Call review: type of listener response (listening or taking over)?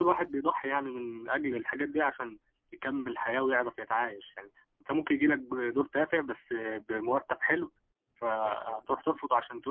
listening